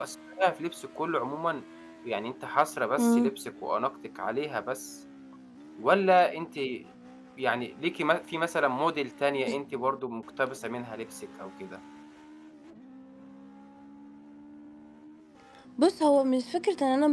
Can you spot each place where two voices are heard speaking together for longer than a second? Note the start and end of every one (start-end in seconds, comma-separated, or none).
none